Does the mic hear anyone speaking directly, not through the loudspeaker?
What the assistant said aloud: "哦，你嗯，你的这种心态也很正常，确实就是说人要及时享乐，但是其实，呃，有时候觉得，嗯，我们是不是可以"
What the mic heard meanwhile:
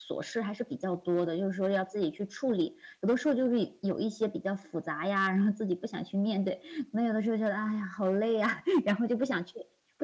Yes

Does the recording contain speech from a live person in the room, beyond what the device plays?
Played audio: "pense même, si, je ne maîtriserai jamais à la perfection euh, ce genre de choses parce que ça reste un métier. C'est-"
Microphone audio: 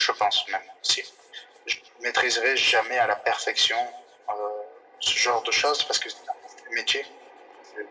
No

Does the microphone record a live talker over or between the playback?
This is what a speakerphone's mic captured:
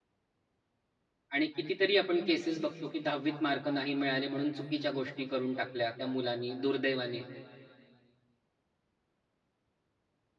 Yes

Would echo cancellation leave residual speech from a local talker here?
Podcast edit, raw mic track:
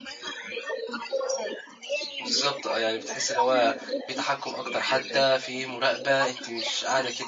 Yes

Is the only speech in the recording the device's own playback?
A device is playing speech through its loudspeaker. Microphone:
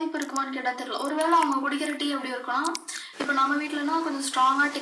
Yes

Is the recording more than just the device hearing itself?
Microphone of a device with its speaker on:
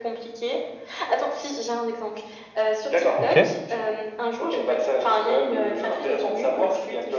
Yes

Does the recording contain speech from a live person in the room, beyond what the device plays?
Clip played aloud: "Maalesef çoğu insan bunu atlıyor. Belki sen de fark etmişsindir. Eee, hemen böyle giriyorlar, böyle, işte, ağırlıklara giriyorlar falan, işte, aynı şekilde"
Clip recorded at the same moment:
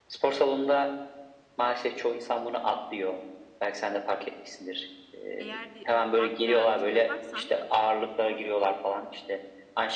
Yes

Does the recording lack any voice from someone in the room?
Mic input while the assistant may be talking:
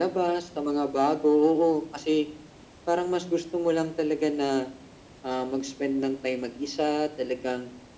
Yes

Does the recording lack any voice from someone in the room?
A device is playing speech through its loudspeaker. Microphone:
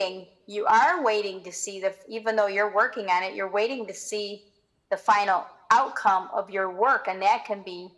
Yes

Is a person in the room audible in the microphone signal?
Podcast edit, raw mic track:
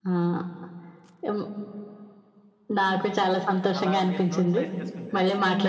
Yes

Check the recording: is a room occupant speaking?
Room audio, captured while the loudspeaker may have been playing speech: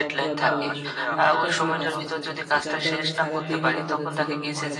Yes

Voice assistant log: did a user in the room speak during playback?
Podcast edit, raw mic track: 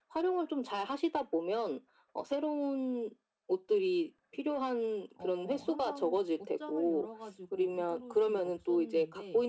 Yes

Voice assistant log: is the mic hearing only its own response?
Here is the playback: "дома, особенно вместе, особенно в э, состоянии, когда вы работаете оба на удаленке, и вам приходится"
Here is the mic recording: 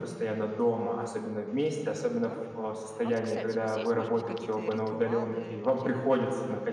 No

